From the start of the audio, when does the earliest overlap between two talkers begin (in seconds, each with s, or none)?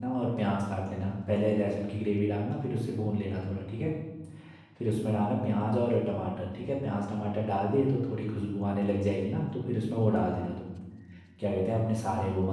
none